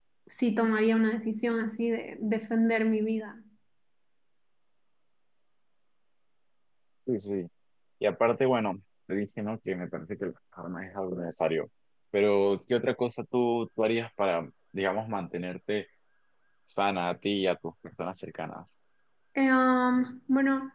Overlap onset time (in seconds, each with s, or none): none